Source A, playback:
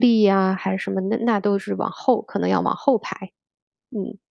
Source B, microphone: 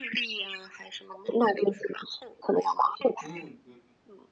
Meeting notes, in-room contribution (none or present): present